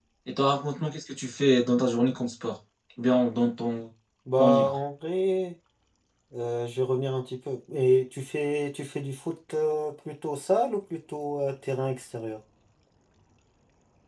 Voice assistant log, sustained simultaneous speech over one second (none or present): none